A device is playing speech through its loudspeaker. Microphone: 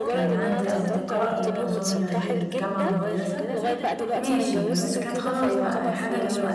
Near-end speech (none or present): present